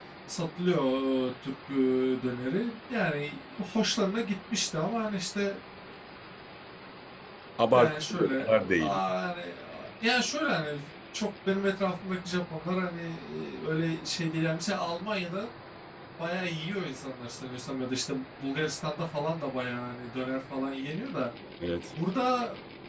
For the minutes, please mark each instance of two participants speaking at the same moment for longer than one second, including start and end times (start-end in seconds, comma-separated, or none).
7.7-9.0